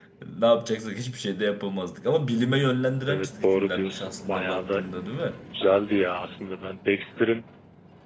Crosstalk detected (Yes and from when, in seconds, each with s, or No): Yes, from 3.1 s